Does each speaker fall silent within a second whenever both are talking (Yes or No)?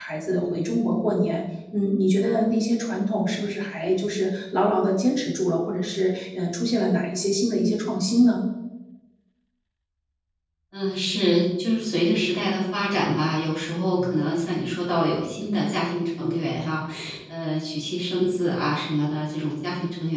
Yes